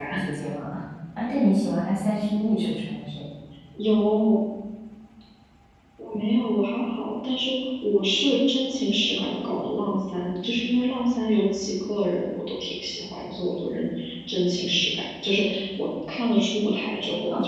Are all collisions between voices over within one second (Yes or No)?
Yes